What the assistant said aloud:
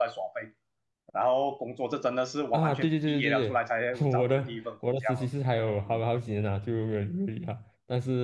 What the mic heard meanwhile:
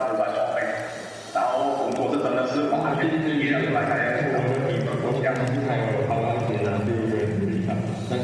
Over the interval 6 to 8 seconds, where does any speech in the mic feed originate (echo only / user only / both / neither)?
echo only